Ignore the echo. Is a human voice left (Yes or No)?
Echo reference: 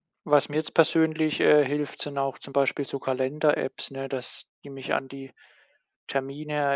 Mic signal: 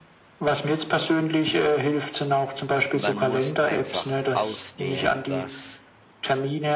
Yes